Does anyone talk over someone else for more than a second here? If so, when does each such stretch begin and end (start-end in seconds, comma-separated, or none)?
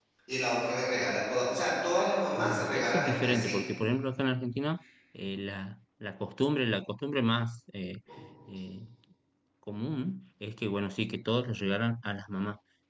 2.4-3.6